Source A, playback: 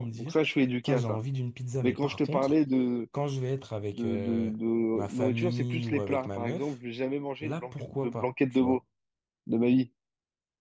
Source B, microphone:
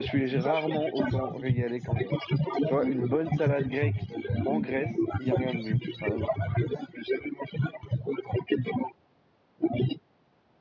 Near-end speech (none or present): present